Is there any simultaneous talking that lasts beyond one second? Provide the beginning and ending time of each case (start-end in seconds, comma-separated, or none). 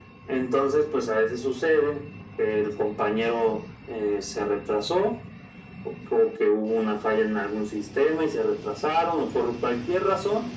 none